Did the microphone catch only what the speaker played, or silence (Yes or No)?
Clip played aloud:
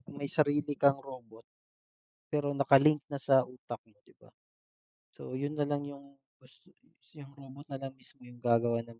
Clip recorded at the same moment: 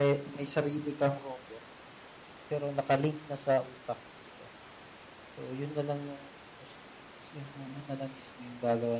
Yes